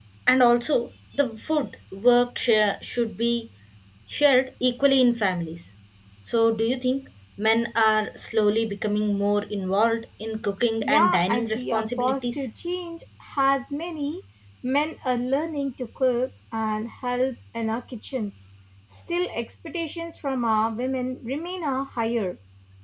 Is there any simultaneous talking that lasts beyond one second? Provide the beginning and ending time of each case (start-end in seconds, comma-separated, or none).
10.8-12.5